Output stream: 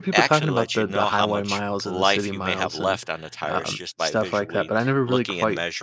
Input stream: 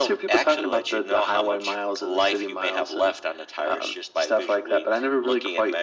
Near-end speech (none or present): none